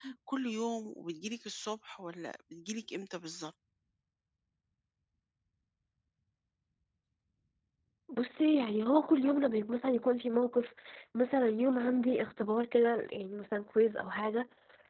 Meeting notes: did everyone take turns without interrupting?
Yes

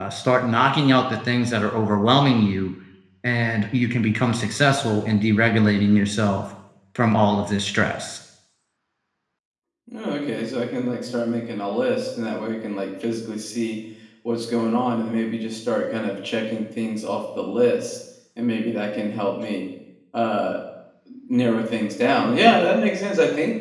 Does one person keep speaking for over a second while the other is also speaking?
No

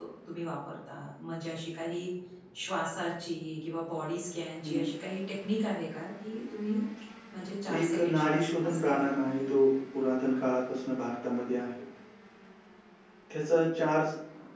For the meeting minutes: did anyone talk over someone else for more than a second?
Yes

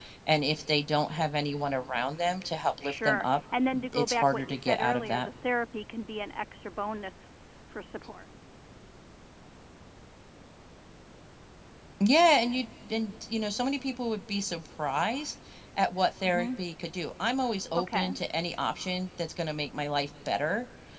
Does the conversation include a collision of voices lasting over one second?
Yes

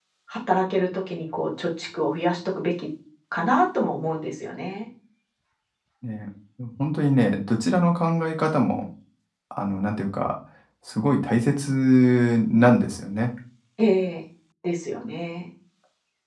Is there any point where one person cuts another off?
No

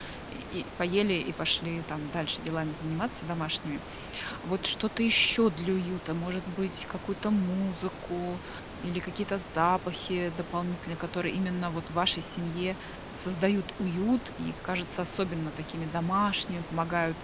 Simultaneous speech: No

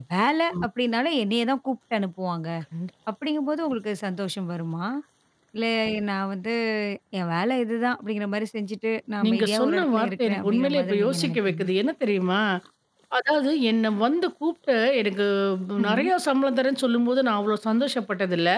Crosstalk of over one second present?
Yes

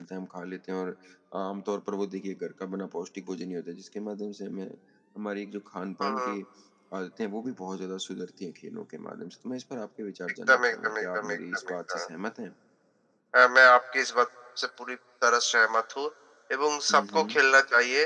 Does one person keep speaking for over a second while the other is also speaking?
Yes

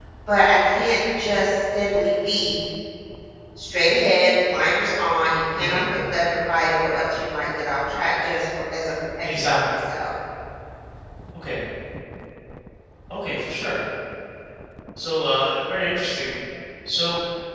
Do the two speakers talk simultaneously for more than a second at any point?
No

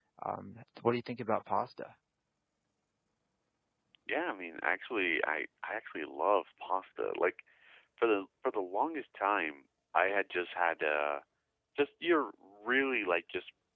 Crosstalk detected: No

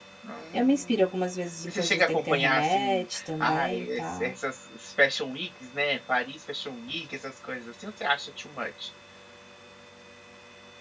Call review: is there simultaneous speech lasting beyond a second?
Yes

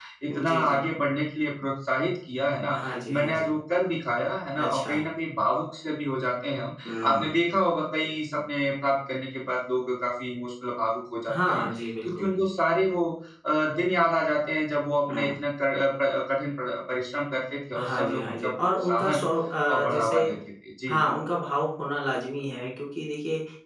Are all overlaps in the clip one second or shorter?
No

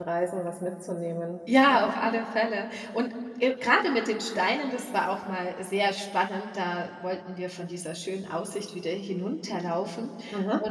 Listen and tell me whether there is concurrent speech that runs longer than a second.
No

